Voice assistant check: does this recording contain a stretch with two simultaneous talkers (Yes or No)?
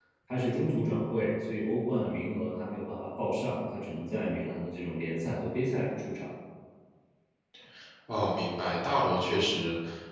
No